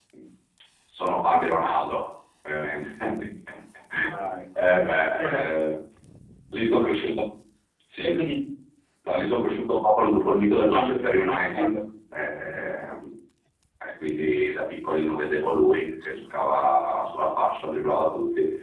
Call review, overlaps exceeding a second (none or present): present